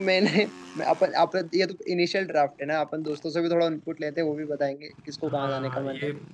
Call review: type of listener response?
taking over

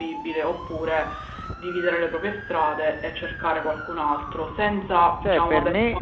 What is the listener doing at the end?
taking over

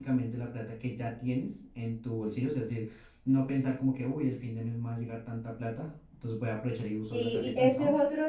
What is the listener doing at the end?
taking over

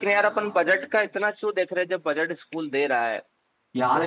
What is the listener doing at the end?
taking over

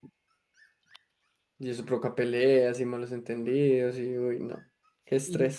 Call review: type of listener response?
taking over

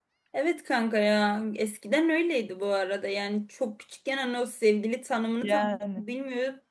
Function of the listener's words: listening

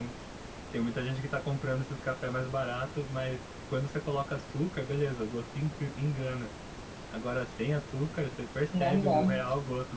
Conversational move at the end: listening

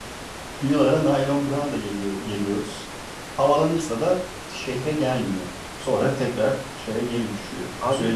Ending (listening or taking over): taking over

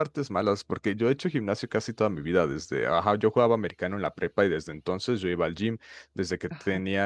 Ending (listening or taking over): listening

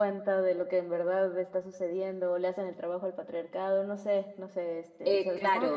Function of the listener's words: taking over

